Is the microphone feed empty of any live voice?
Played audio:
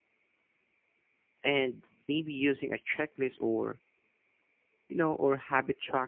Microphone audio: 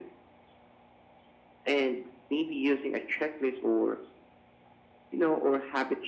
Yes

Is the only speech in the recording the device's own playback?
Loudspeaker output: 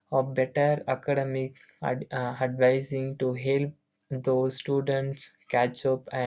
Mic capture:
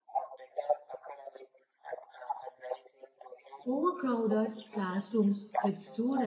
No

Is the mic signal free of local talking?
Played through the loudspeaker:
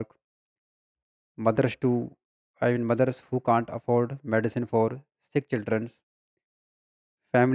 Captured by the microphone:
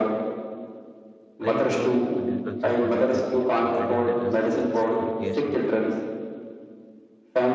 No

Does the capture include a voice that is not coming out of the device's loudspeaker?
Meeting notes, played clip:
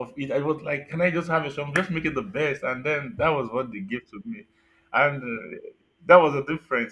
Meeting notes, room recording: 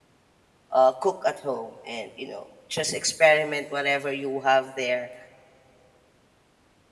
Yes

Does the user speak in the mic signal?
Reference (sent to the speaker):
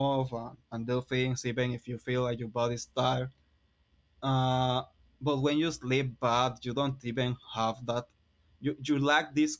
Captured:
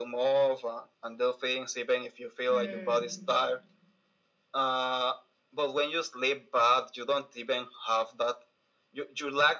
Yes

